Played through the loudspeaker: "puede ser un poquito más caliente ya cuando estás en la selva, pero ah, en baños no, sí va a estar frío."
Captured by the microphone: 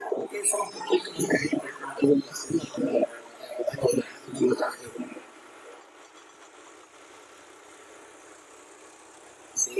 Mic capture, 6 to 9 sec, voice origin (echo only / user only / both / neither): neither